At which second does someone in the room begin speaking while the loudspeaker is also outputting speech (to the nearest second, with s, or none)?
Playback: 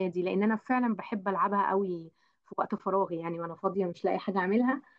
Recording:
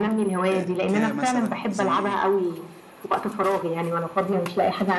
1 s